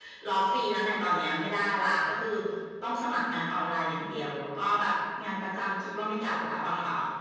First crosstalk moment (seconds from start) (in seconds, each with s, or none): none